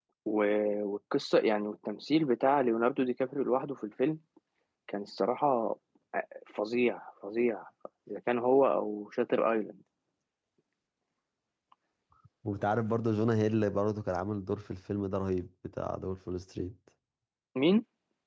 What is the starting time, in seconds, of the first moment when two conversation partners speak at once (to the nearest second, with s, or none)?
none